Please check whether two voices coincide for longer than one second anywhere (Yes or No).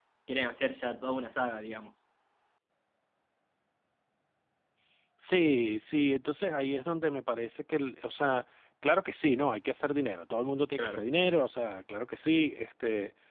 No